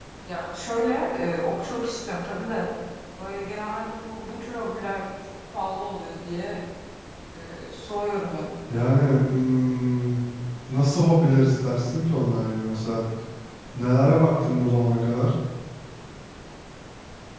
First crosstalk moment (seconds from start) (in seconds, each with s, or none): none